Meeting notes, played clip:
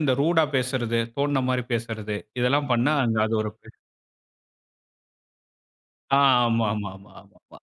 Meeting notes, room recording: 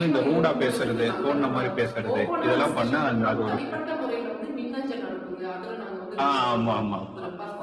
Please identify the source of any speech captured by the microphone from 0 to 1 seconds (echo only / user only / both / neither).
both